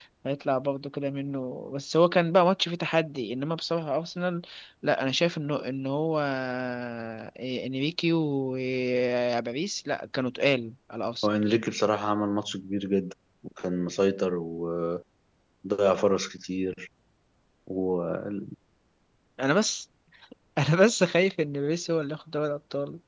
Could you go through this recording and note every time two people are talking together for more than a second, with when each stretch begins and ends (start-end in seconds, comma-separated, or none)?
none